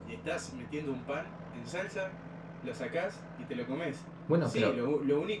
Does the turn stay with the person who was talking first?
Yes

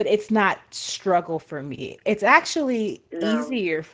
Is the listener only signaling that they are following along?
Yes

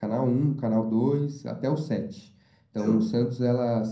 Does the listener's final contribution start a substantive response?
No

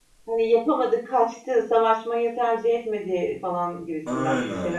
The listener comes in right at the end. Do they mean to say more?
Yes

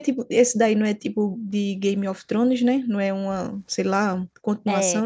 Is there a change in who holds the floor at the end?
Yes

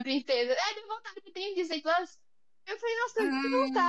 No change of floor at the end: Yes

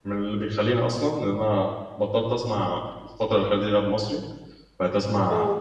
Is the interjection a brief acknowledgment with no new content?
Yes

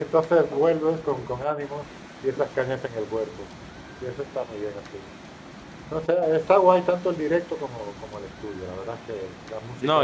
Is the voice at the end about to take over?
Yes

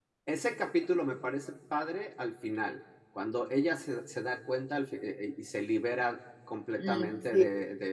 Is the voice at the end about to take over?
Yes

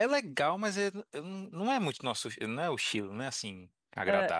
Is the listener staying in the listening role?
No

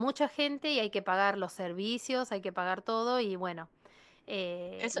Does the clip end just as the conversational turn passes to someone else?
Yes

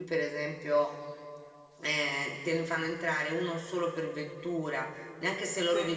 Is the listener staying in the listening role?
Yes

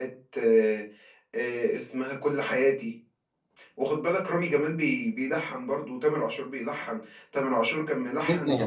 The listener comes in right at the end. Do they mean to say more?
Yes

